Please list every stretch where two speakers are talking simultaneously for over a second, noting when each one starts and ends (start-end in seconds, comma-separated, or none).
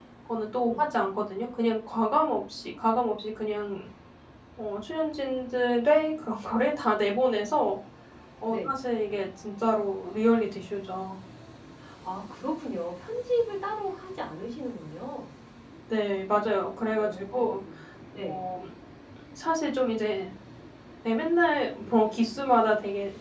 none